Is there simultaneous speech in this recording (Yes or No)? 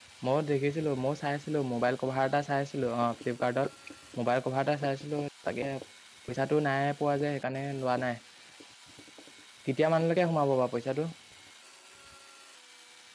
No